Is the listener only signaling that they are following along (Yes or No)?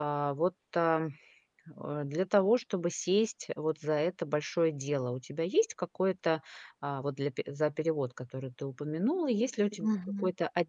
Yes